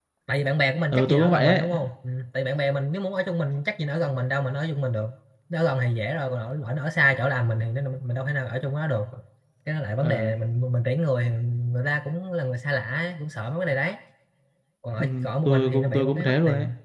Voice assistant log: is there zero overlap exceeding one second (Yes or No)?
No